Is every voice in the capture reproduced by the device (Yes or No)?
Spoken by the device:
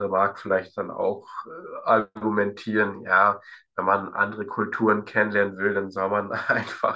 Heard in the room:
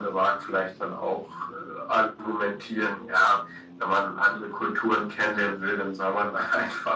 Yes